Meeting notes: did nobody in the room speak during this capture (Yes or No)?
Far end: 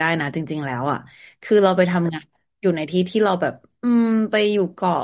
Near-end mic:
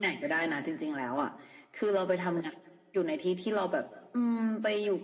Yes